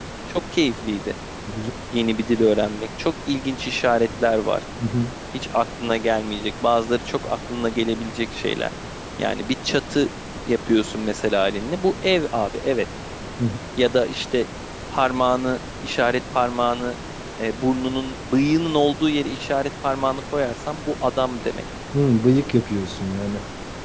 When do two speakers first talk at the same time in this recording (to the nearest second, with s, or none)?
none